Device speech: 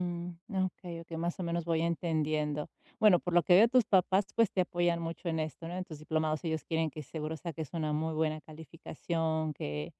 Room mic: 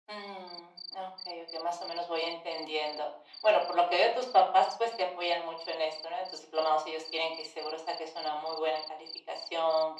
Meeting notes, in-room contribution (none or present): none